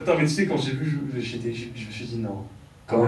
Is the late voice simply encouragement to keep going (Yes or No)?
No